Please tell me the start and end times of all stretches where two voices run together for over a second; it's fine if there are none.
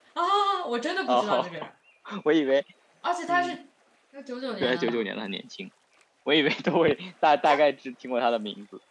none

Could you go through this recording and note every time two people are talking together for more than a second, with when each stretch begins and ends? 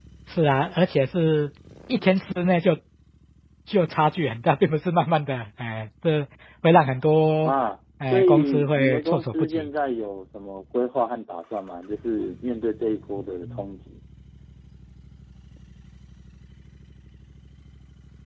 8.1-9.7

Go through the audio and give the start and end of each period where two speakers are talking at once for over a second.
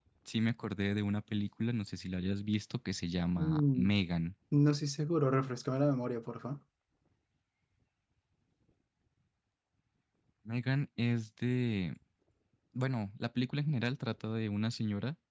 none

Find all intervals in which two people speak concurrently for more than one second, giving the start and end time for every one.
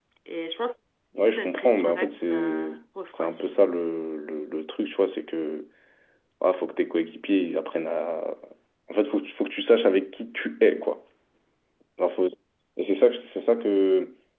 1.2-2.7

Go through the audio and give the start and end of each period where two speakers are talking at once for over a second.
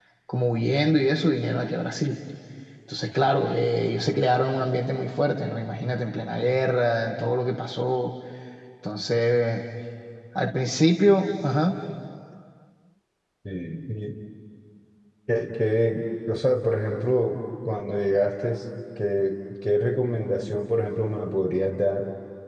none

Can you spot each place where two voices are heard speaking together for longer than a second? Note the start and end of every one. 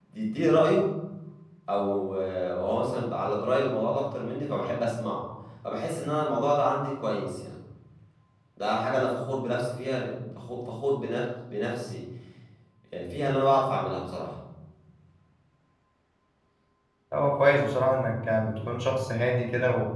none

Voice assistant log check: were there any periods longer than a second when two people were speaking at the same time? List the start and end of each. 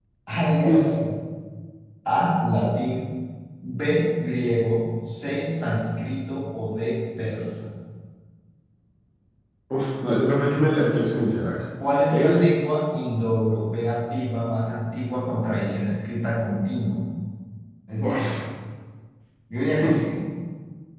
none

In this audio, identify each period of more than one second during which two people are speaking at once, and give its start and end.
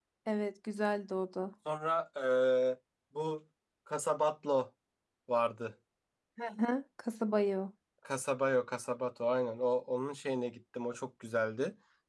none

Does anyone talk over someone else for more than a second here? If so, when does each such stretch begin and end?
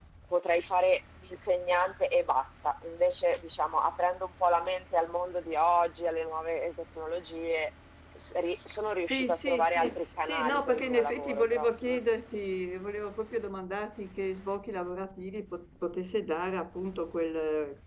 9.1-12.0

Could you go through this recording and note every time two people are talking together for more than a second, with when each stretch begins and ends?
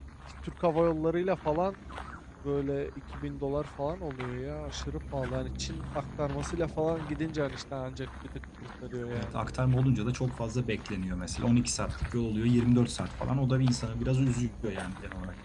none

